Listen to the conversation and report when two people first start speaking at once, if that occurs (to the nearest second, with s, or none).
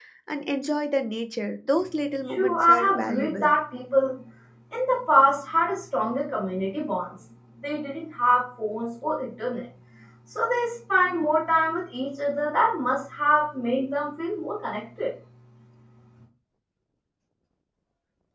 2 s